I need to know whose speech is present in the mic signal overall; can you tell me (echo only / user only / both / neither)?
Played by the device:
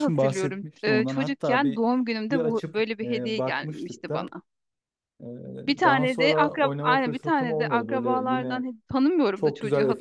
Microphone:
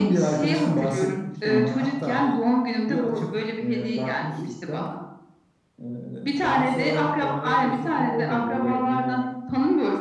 echo only